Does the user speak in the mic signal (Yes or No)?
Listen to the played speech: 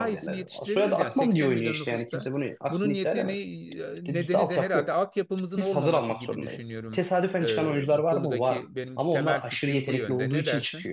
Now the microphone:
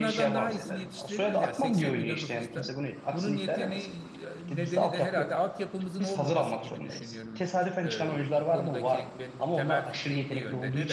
No